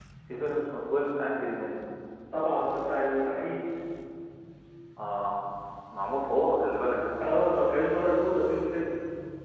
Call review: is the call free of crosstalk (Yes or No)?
Yes